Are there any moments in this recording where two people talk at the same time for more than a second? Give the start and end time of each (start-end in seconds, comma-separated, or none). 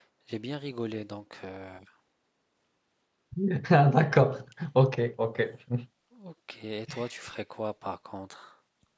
none